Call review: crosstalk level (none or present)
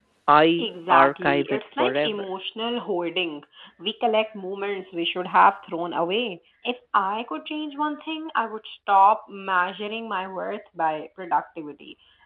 present